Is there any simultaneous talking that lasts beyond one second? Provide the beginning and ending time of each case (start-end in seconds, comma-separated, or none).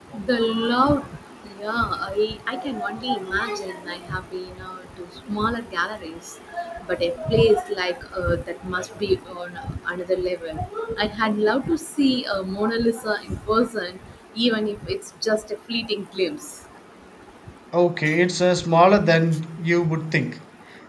none